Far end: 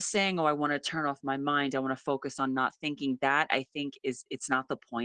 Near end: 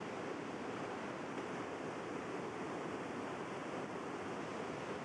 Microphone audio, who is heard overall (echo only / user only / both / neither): neither